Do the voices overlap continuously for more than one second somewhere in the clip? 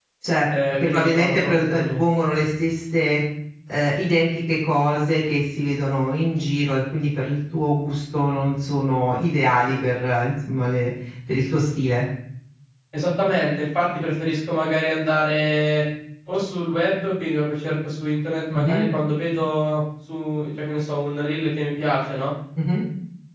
Yes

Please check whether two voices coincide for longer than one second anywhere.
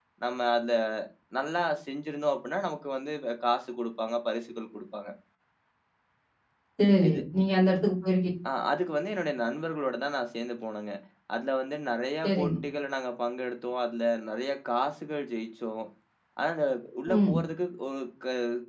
No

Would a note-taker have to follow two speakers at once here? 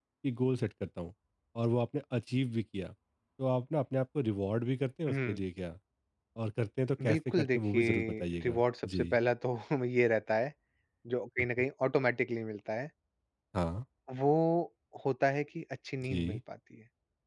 Yes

